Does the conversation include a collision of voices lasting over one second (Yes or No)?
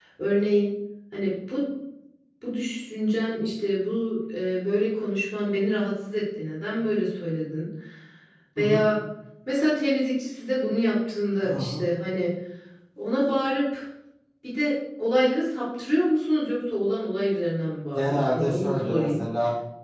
Yes